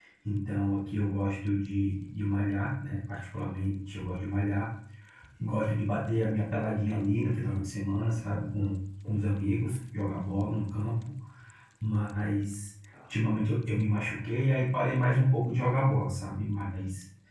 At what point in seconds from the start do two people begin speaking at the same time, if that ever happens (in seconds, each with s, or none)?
none